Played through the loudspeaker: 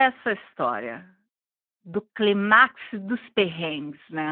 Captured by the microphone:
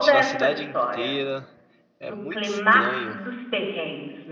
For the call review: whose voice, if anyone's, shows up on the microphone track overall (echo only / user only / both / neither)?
both